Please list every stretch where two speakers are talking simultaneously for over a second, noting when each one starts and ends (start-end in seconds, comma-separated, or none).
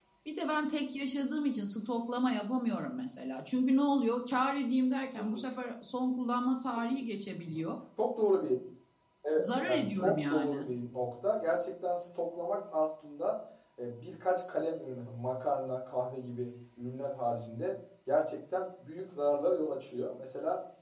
9.4-10.7